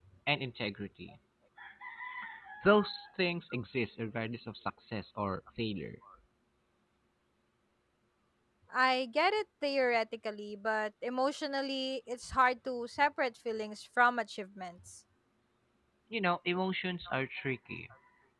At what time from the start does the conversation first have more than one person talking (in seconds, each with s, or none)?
none